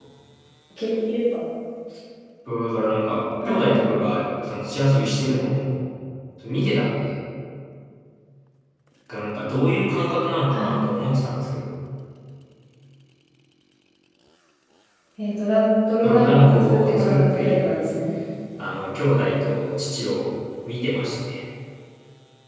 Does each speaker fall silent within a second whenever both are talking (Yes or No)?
No